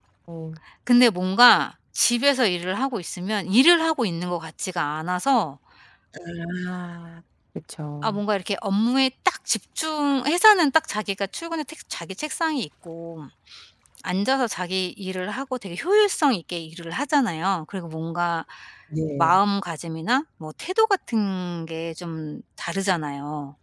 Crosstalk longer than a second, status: none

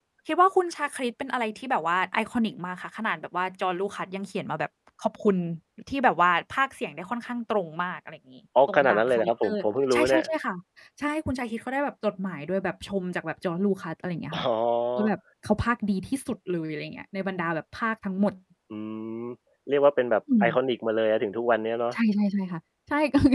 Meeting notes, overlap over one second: present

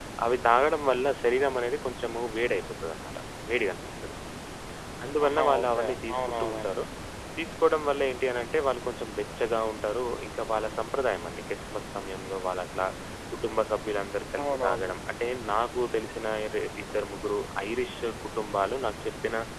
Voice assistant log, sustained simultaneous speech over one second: present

